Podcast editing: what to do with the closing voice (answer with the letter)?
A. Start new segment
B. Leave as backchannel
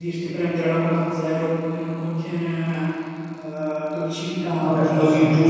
A